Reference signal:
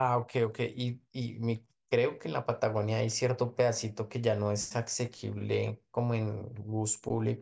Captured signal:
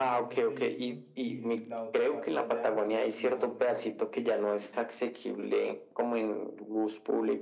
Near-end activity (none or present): present